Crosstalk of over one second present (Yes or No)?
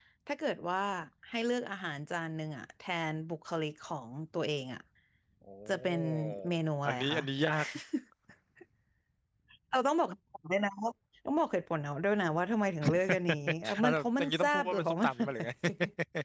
Yes